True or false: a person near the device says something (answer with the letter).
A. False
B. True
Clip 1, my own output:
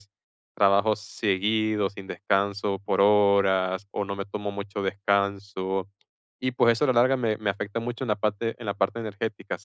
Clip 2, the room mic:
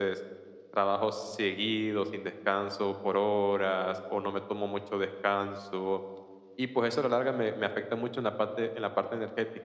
A